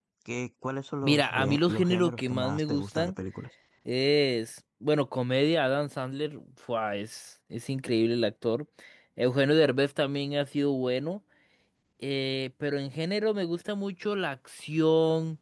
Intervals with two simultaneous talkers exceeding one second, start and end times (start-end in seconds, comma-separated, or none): 1.0-3.1